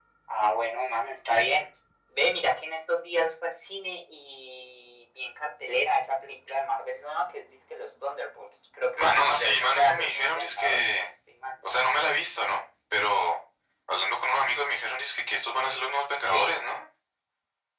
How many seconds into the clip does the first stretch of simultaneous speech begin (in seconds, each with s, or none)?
8.9 s